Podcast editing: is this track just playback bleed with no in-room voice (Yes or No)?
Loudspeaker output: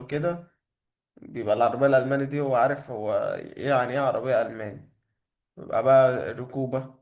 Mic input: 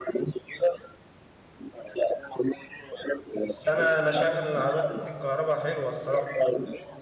No